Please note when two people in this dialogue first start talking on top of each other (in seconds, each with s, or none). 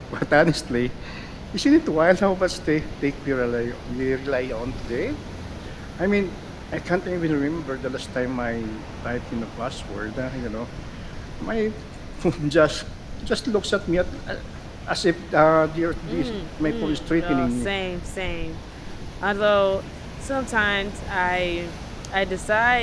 16.1 s